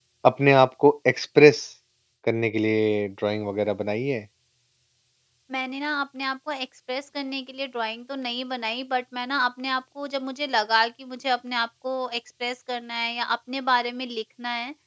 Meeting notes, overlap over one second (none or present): none